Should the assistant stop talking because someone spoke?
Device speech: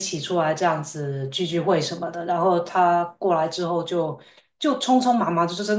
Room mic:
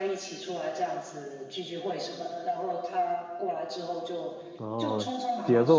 Yes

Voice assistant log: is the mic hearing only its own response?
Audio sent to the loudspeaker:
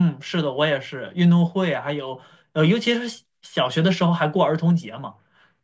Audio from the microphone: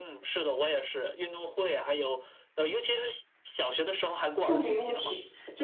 No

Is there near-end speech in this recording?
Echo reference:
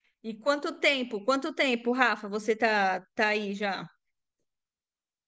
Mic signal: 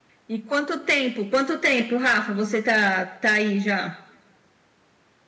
No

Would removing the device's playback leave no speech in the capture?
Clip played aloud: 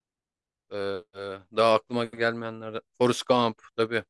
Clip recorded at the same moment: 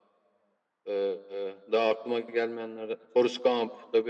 Yes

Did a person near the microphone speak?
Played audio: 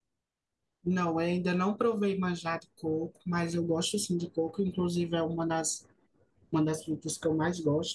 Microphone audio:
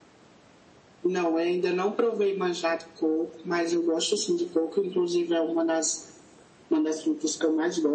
No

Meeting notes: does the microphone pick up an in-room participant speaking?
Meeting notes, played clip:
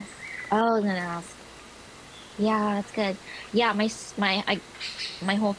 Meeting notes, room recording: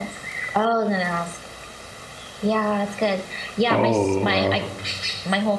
Yes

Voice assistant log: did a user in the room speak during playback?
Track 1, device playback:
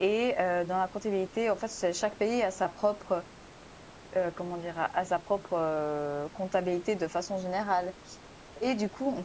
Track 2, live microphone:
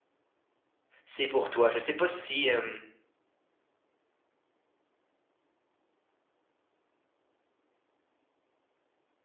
Yes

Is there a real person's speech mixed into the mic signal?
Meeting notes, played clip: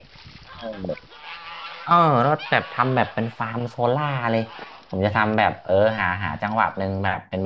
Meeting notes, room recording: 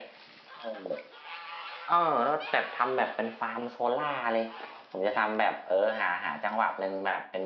No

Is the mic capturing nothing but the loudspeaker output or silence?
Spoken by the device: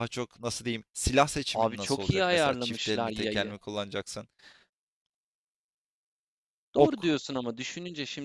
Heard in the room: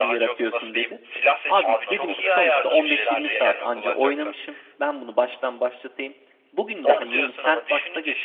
No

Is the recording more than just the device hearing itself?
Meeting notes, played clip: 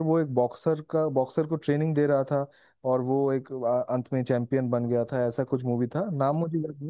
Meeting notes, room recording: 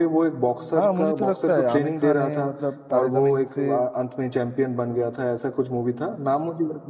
Yes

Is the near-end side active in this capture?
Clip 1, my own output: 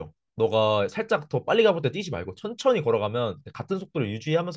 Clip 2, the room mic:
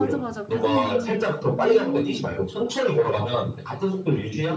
Yes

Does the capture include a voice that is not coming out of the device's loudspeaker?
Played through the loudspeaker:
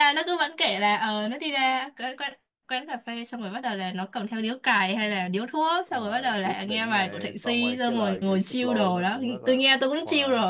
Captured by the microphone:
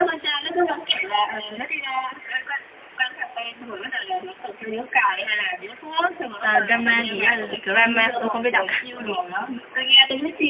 Yes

